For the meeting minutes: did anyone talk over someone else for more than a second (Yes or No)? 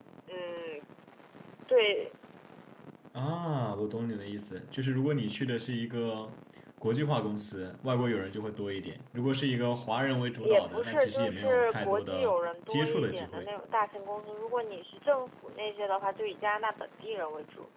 Yes